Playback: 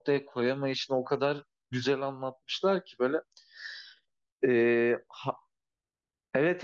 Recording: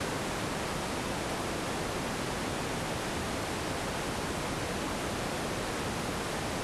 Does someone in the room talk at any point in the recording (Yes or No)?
No